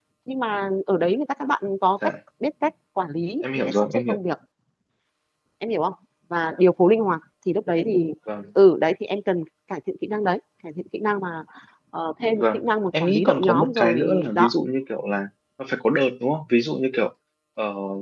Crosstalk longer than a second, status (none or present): present